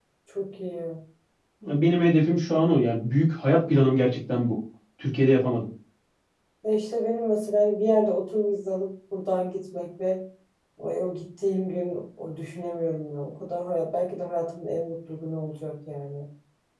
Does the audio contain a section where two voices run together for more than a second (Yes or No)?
No